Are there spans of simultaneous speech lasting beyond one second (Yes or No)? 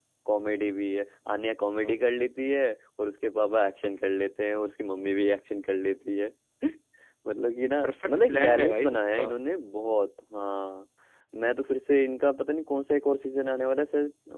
Yes